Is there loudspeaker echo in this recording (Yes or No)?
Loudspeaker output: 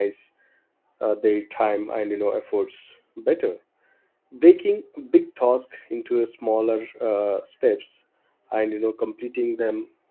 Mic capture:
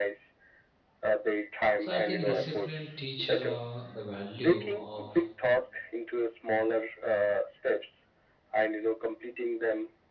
Yes